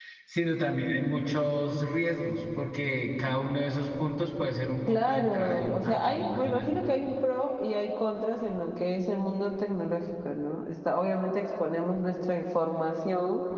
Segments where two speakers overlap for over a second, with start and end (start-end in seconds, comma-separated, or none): 4.9-6.7